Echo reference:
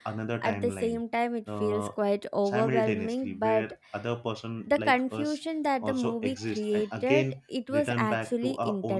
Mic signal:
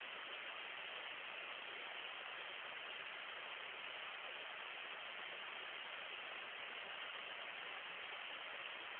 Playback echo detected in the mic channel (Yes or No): No